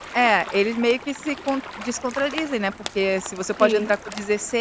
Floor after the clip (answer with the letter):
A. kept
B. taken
A